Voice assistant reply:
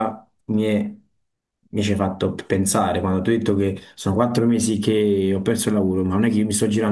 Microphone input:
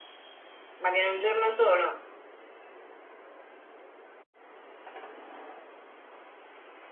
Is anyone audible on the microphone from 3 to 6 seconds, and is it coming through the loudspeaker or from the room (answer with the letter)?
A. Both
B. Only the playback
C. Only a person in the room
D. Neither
D